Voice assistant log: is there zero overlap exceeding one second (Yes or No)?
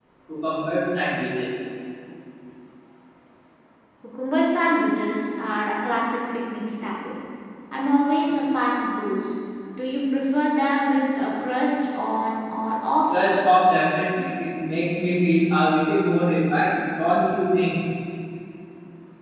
Yes